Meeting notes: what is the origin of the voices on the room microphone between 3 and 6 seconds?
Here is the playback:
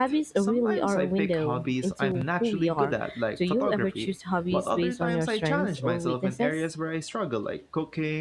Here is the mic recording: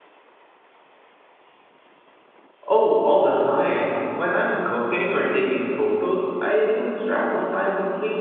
user only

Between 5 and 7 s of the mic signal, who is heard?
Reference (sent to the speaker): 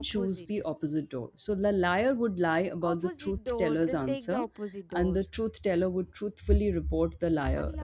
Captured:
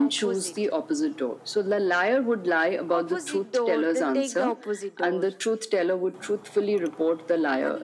echo only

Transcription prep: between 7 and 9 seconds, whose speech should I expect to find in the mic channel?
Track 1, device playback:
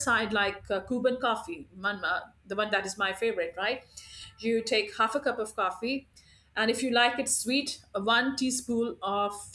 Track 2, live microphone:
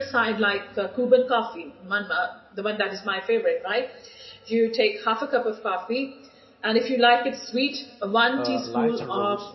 both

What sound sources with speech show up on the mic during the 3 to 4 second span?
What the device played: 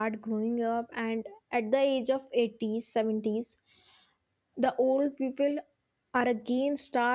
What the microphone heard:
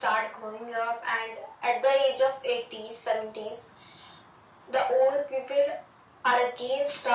echo only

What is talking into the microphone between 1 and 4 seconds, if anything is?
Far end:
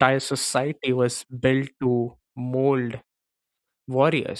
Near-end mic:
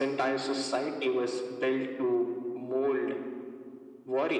echo only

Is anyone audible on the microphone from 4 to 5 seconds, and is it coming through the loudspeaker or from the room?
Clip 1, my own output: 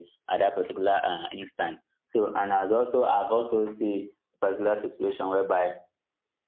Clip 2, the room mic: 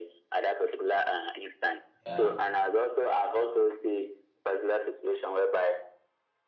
echo only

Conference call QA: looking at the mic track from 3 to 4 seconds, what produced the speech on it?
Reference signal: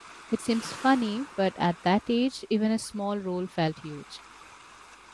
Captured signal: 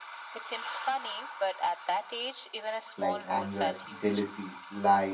both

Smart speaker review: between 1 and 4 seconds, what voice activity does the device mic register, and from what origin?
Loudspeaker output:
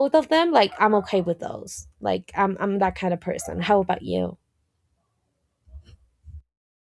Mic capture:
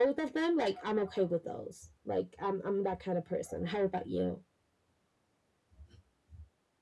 echo only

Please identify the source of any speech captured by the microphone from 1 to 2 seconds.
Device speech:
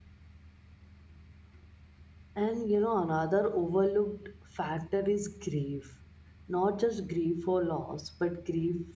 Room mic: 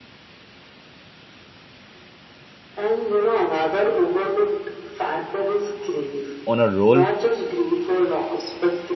neither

